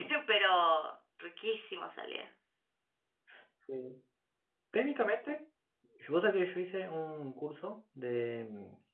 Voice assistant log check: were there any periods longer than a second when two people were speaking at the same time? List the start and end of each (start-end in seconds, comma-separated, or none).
none